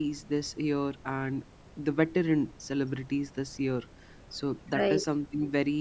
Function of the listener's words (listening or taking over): listening